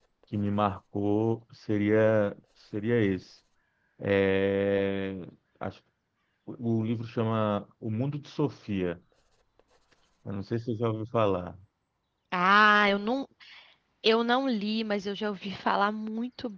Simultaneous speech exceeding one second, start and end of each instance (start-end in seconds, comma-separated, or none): none